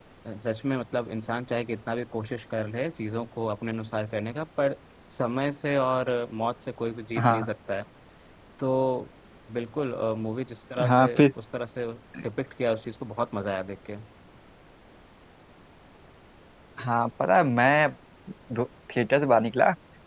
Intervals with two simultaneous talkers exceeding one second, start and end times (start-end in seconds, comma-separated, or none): none